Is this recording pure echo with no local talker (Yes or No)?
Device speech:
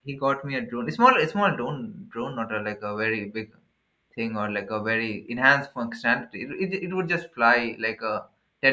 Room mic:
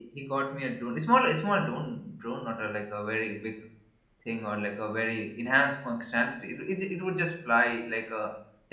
Yes